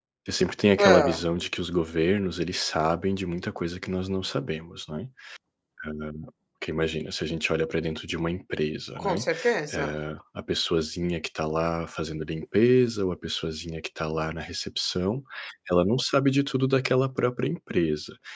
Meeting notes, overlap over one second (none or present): none